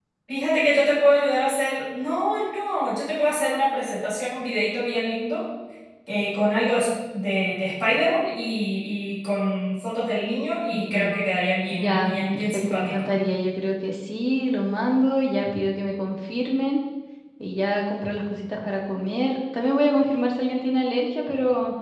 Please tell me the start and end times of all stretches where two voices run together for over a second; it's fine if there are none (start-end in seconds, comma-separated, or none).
11.7-13.1